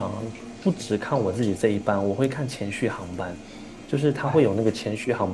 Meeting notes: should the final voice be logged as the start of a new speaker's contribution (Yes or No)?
No